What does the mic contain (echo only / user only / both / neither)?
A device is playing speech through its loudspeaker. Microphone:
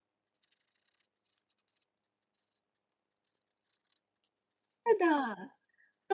user only